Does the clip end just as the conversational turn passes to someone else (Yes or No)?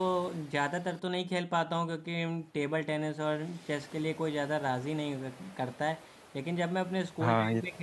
No